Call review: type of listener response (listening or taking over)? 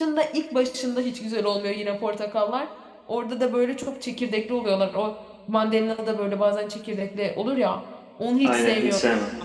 taking over